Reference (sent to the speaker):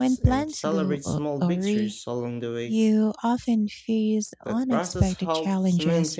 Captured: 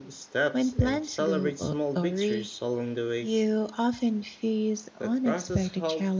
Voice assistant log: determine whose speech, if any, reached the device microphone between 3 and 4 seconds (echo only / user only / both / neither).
echo only